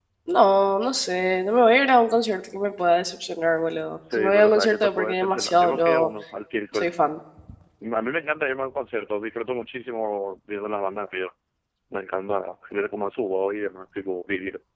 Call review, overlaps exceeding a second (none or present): present